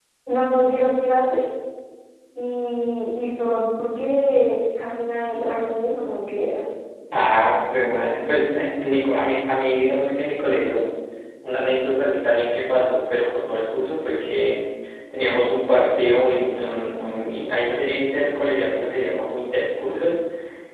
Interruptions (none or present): none